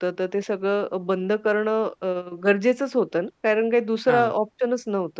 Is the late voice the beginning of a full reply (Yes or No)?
No